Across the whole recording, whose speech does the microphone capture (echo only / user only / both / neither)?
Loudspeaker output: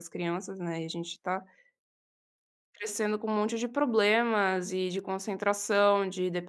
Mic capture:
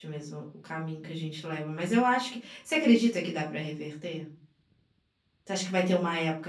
user only